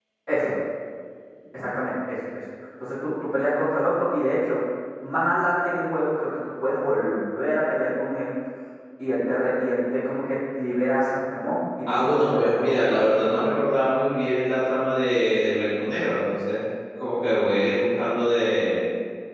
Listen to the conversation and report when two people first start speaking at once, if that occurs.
11.9 s

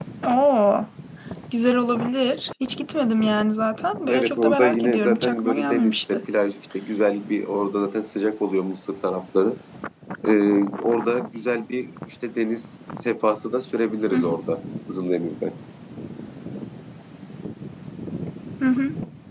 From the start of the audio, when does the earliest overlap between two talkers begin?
4.0 s

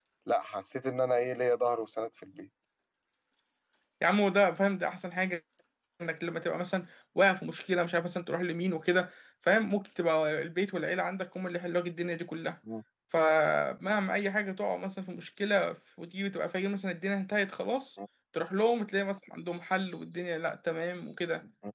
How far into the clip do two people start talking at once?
none

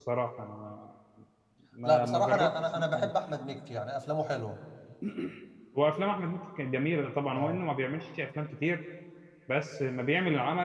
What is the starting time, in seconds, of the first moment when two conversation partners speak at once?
1.9 s

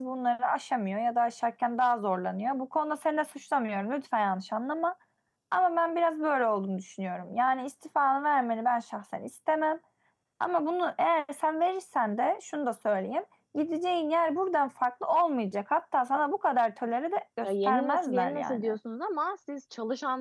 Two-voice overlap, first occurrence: 17.4 s

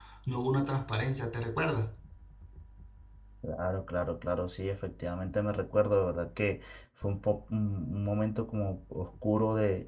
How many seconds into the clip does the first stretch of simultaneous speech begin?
none

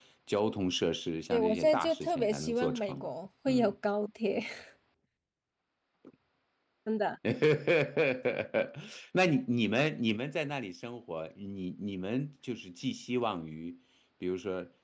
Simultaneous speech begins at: 1.3 s

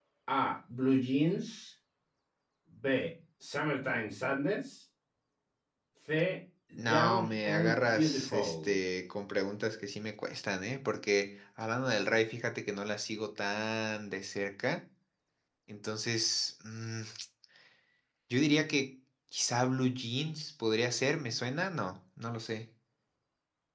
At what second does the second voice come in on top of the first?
6.7 s

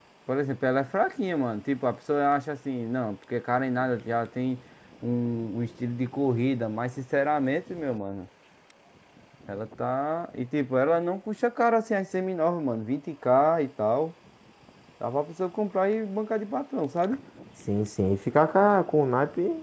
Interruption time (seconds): none

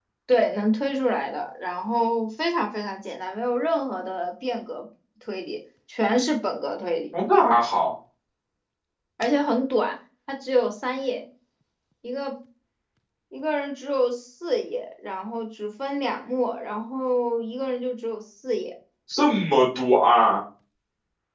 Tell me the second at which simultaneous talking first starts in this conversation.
none

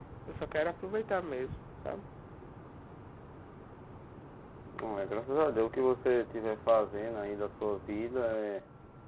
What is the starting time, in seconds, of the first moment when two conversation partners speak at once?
none

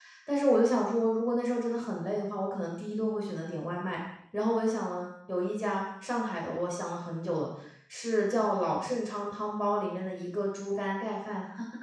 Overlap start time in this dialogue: none

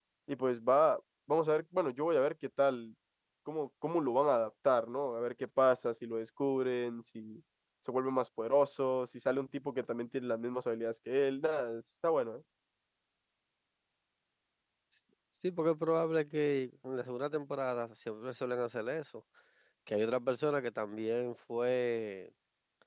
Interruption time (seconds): none

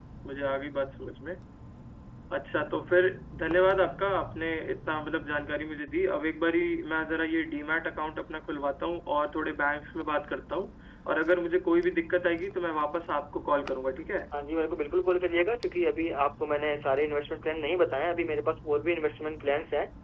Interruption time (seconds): none

